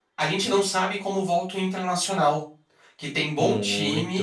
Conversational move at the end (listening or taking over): listening